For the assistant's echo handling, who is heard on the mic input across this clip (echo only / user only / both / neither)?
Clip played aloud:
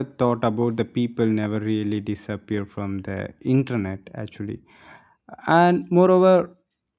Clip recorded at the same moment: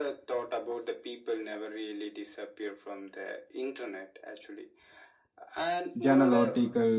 both